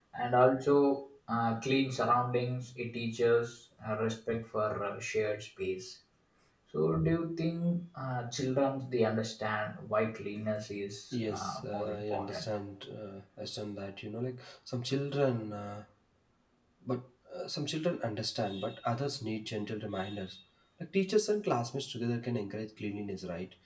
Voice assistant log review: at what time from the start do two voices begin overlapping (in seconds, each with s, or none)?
11.1 s